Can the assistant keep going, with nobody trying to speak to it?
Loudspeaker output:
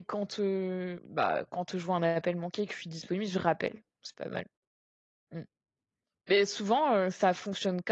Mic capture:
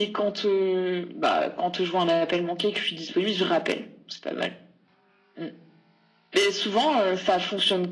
Yes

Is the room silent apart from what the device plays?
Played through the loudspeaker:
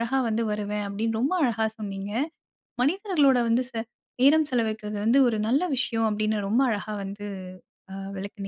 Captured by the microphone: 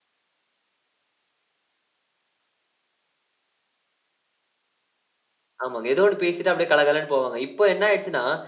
No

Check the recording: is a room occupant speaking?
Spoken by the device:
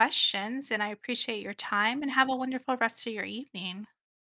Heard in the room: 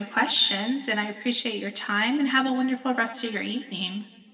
No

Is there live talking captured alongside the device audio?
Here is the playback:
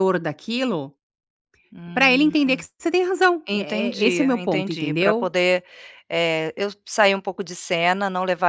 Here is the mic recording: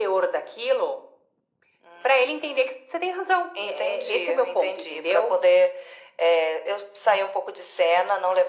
No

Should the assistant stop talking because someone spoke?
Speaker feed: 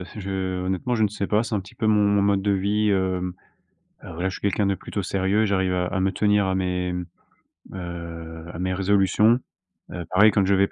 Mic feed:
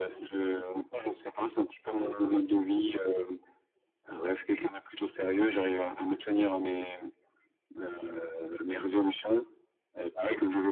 No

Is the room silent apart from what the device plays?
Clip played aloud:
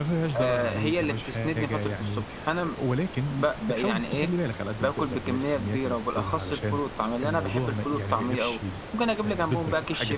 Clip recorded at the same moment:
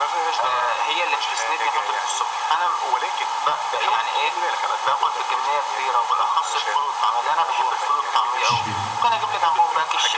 No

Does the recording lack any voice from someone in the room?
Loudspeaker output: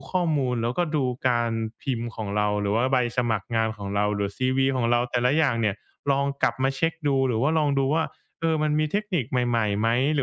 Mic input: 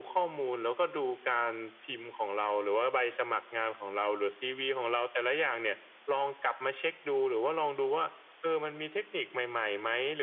Yes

